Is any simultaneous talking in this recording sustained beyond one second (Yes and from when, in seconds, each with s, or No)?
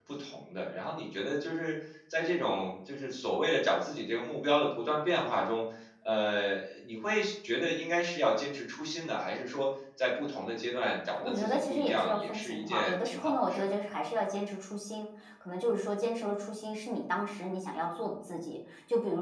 Yes, from 11.2 s